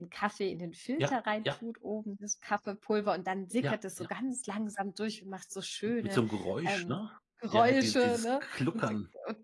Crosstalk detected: Yes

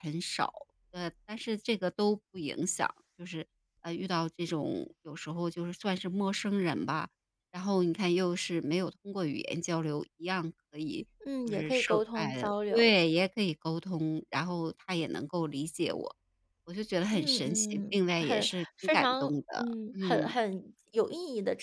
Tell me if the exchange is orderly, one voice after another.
No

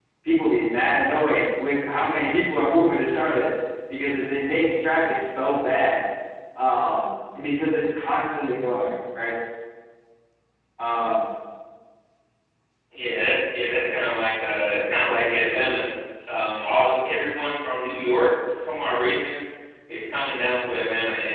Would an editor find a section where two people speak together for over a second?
No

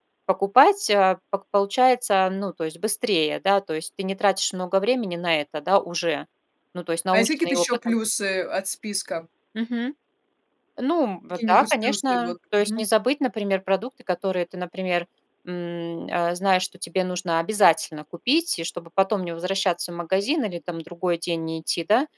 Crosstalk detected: Yes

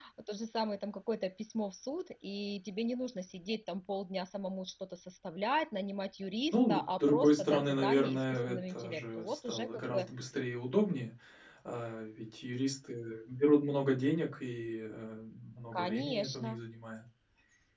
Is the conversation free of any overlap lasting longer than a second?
No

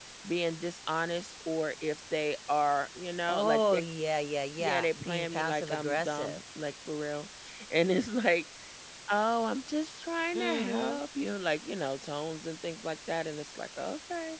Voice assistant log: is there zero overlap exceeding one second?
No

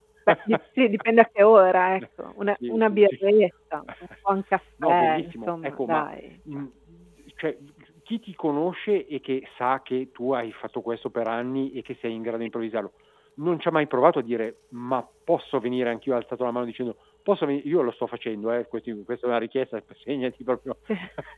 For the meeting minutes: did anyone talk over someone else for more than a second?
Yes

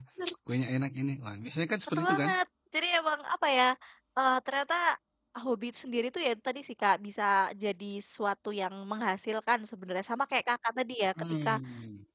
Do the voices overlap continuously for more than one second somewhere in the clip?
No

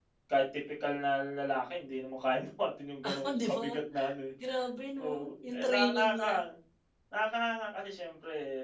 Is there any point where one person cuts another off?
Yes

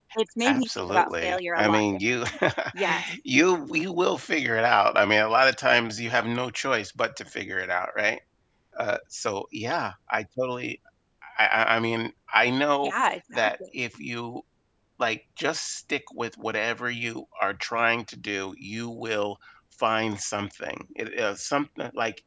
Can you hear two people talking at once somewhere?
Yes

